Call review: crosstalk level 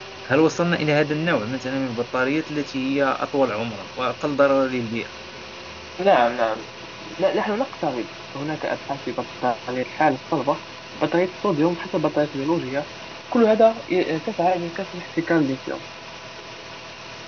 none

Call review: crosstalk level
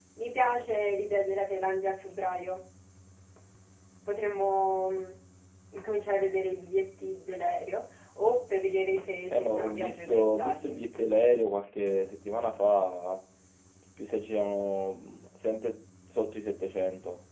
present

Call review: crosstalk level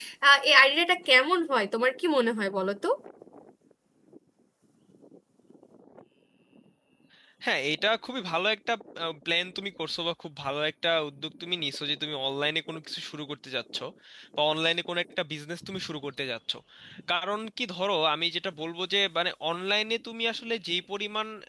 none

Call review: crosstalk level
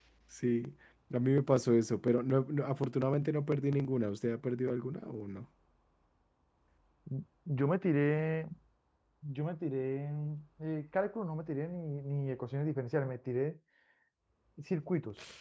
none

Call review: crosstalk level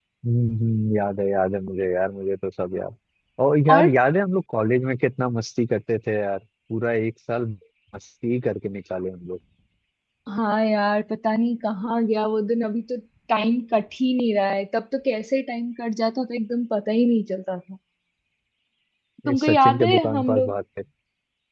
present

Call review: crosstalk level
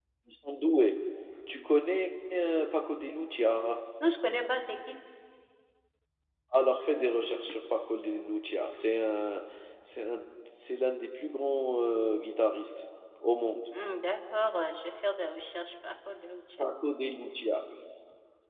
none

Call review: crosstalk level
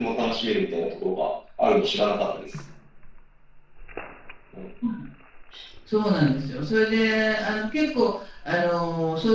none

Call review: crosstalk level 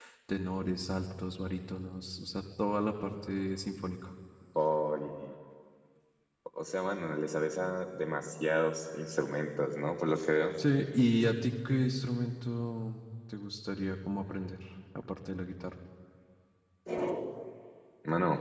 none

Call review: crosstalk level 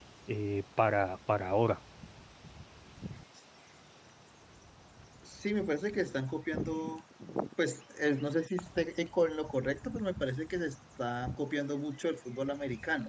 none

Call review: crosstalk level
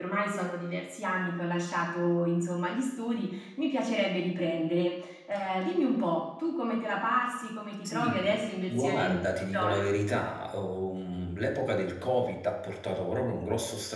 present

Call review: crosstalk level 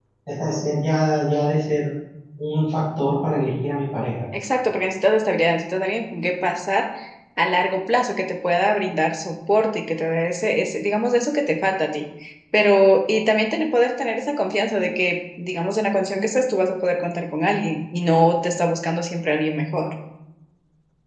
none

